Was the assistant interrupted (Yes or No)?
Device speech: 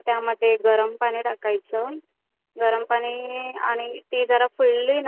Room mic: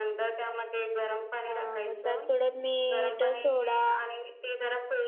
Yes